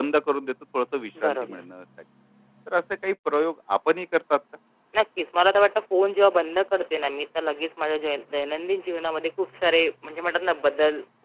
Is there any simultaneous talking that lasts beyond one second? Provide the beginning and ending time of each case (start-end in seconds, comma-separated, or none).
none